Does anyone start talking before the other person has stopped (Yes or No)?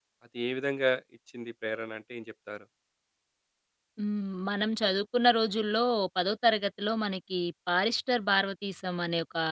No